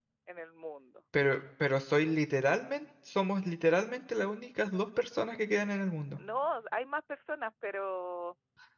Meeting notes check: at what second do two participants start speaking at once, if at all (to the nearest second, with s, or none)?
none